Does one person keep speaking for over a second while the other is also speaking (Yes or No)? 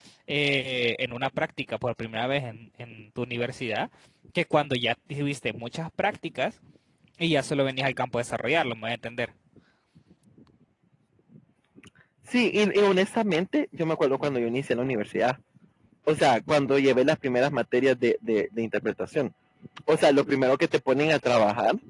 No